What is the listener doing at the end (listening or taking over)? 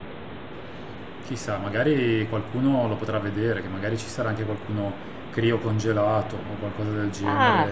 taking over